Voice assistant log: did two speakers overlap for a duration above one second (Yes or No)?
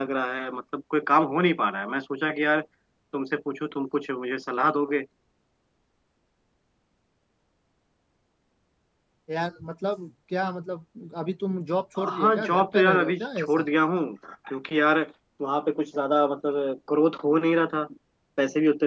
Yes